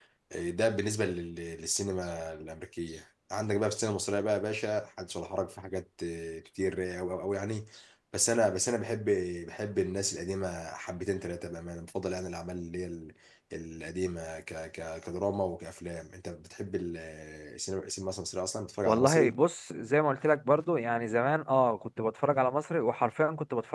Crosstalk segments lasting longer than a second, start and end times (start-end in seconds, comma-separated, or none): none